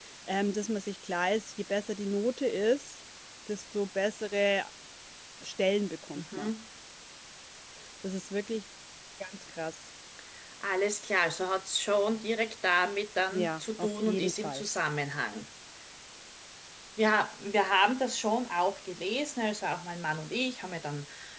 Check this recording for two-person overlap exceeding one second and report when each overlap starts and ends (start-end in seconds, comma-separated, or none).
13.3-14.6